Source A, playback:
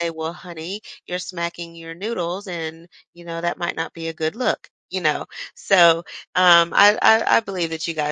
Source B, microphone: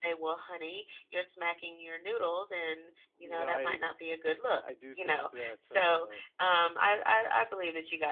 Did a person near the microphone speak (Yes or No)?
Yes